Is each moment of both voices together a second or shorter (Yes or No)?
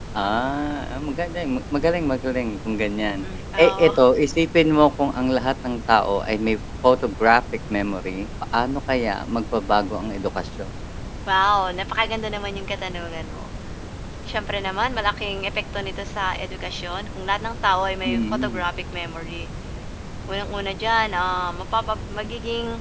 Yes